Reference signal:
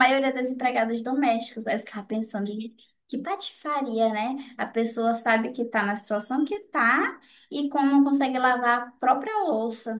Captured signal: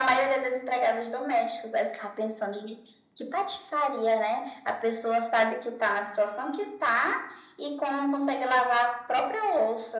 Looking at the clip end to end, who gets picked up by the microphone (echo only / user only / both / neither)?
echo only